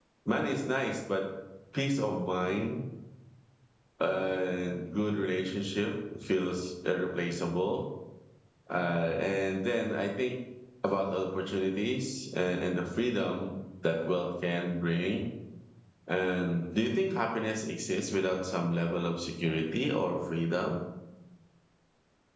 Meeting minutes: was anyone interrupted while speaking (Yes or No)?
No